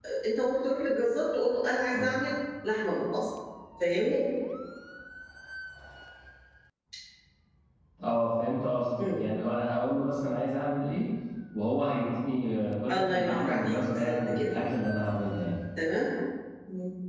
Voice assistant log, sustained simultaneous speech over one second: present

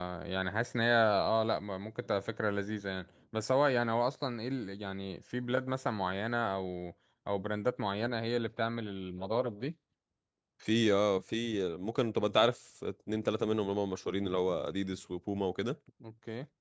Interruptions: none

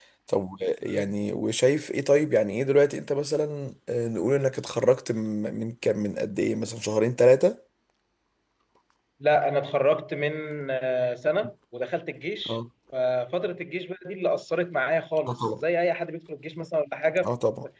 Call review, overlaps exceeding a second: none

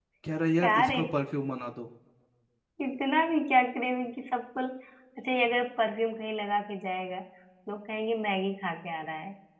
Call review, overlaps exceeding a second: none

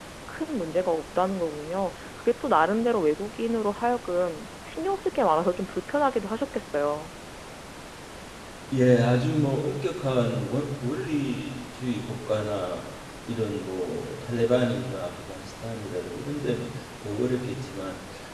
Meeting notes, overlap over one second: none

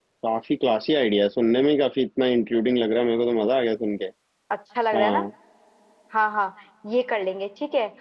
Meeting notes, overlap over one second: none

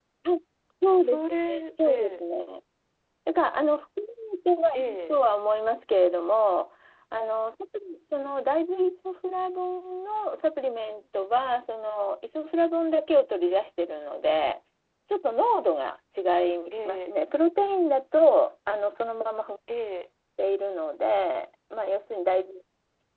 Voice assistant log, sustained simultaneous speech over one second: present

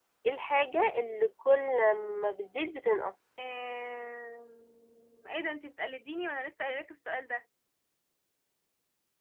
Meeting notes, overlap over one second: none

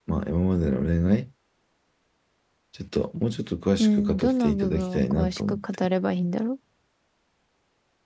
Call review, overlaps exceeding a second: present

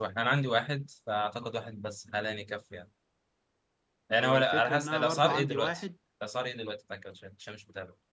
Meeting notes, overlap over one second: present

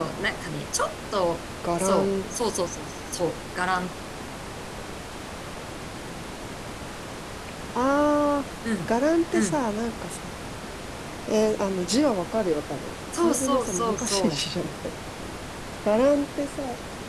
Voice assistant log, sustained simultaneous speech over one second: present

